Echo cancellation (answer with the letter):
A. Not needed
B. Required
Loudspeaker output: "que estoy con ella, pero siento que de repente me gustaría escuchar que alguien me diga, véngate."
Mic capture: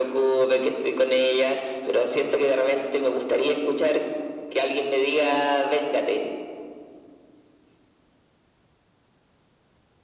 B